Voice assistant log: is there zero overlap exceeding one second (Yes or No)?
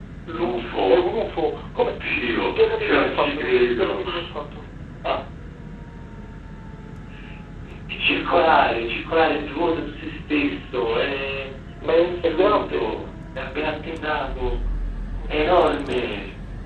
No